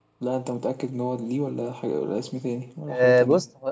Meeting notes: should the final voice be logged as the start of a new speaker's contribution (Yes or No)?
Yes